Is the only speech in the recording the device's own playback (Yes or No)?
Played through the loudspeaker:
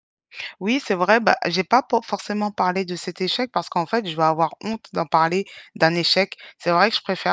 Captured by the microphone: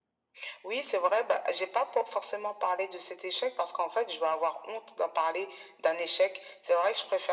Yes